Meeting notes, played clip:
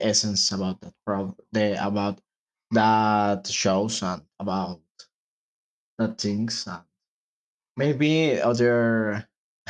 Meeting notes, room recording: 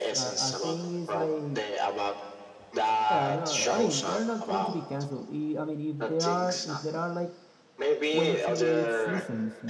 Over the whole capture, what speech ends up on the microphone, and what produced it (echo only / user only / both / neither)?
both